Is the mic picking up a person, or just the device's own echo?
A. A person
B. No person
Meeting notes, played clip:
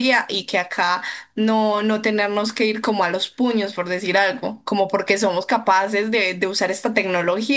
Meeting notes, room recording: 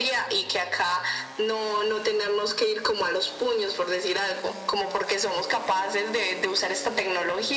B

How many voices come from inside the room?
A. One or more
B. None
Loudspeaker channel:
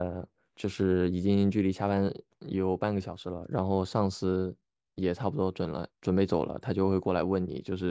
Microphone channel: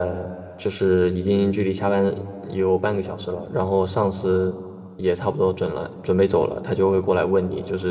B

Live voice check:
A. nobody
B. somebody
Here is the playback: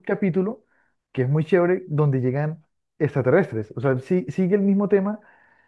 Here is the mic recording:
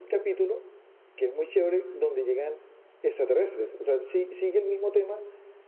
A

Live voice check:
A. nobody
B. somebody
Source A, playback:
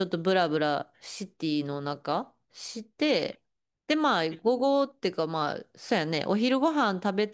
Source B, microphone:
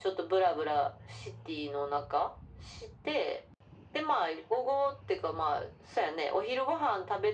A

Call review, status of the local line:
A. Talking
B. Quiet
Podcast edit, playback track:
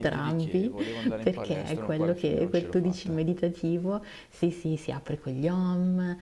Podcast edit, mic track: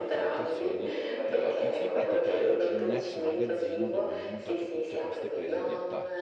A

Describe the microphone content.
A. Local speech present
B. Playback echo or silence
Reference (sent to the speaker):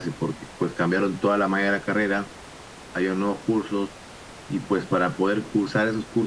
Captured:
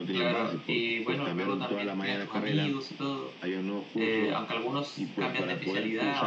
A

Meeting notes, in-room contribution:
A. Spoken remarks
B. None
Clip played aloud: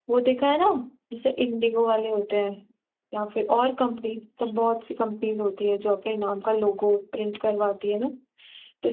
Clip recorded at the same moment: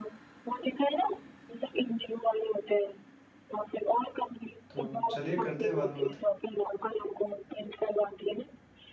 A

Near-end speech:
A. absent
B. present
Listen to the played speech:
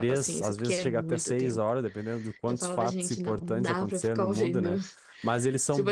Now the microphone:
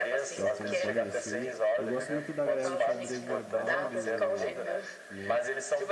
B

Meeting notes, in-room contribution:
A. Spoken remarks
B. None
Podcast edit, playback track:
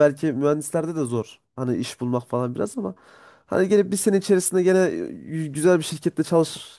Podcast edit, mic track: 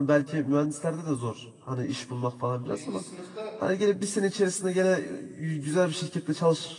A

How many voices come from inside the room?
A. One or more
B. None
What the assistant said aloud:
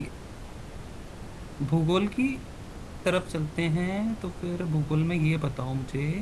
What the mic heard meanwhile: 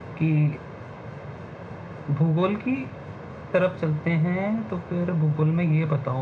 B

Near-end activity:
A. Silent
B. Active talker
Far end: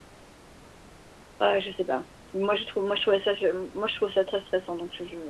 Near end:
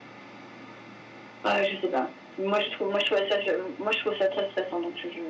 A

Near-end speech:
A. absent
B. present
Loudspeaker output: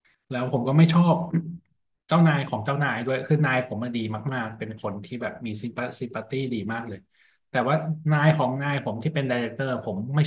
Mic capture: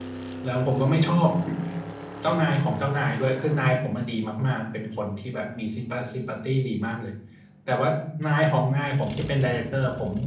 A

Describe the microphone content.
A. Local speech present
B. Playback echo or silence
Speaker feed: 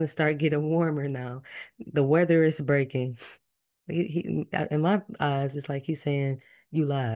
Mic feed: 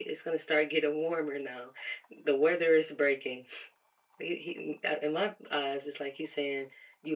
B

